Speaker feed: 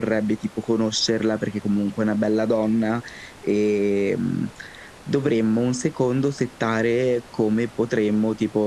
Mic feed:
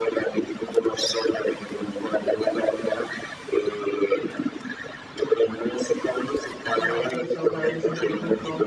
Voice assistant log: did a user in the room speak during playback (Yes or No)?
Yes